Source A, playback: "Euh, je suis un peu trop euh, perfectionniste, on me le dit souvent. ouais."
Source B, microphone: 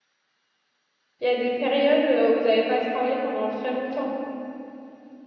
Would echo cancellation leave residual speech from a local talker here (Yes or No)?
Yes